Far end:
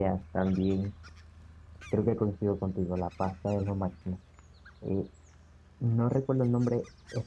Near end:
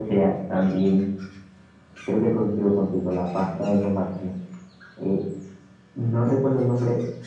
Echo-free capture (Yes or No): No